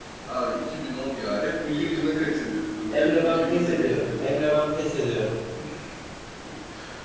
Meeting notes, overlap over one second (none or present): present